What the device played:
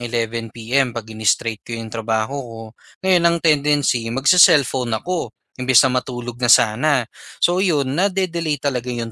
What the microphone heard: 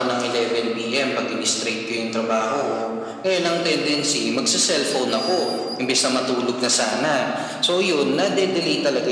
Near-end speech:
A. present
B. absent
B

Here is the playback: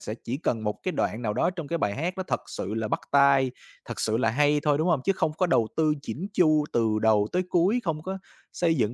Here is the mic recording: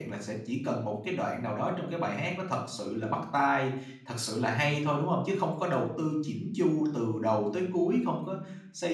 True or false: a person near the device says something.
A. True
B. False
B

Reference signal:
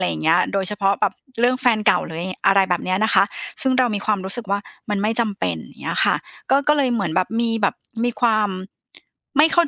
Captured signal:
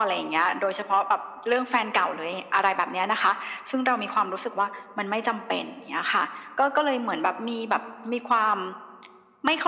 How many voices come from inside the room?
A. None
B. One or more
A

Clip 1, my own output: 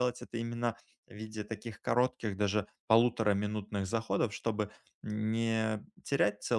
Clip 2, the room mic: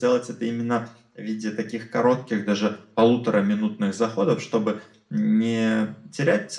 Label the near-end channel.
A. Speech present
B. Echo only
B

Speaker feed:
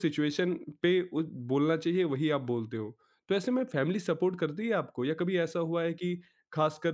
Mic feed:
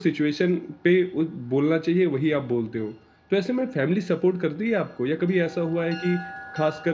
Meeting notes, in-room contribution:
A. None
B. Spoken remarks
A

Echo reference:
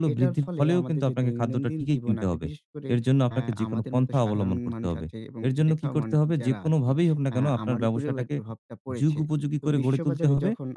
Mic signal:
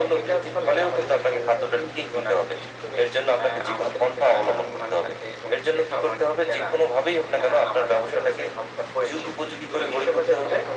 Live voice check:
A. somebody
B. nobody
B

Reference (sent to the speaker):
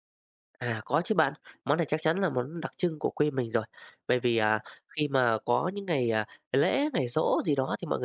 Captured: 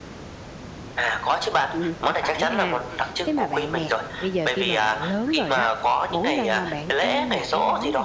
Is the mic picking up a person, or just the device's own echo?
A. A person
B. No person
A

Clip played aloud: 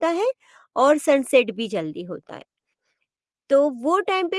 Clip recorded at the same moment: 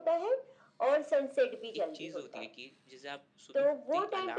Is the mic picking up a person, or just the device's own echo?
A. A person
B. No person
A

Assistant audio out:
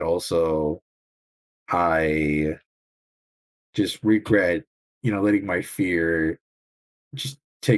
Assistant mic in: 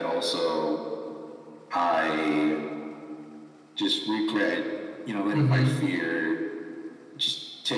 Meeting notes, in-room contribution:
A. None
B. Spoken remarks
B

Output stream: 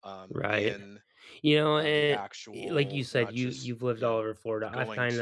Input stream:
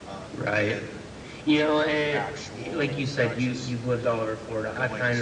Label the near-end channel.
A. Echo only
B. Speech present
A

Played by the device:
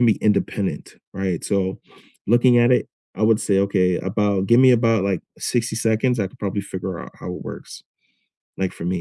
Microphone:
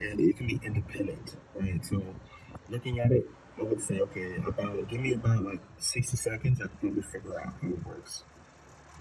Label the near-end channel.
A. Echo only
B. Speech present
A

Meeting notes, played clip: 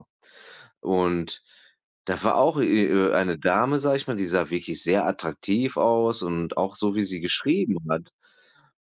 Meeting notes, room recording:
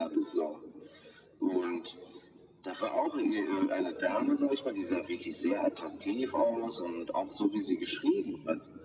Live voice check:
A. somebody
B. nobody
B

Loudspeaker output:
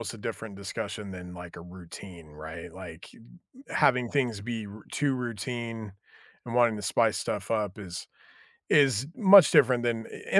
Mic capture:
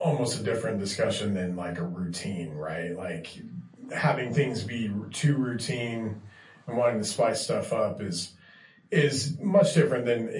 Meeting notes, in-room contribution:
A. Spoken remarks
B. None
B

